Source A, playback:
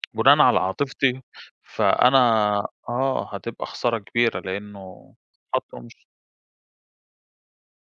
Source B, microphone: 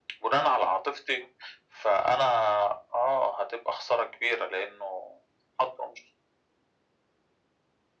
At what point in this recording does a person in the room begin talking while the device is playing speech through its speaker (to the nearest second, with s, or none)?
none